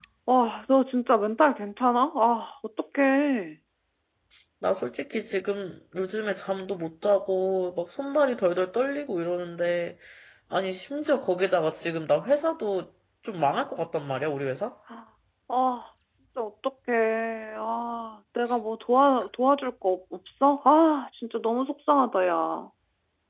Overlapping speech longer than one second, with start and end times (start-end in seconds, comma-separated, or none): none